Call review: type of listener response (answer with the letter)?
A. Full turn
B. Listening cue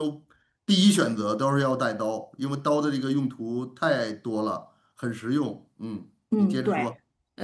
A